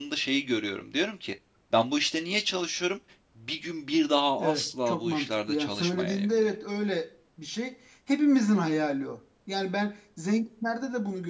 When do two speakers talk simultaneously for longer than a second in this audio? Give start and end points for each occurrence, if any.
4.4-6.5

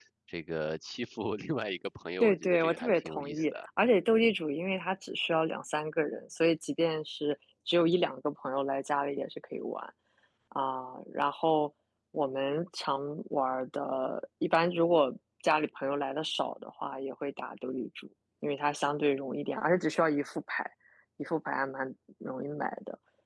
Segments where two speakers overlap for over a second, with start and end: 2.2-3.6

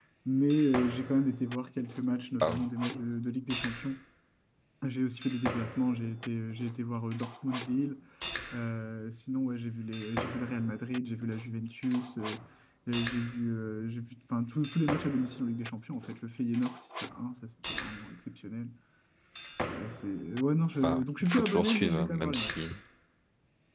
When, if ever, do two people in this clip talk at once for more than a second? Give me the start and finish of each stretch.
20.8-22.5

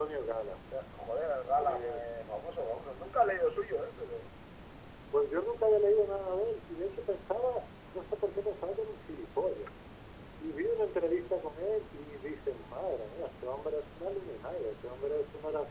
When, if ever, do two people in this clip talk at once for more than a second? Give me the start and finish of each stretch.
none

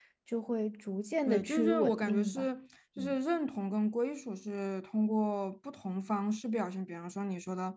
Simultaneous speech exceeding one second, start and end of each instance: 1.2-2.5

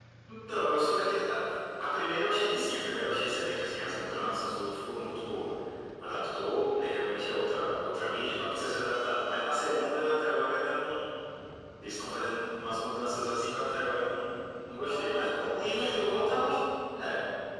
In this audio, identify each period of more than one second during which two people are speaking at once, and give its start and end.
14.8-16.0

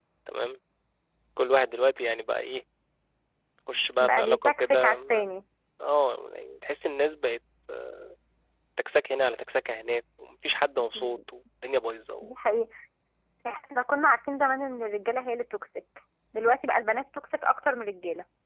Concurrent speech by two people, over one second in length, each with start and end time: 4.0-5.3

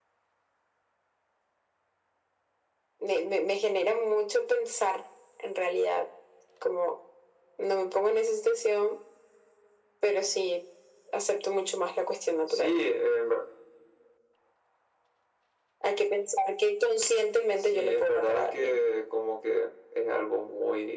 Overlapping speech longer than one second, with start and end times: 17.6-18.8

